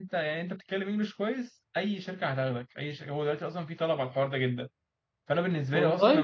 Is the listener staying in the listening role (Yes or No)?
Yes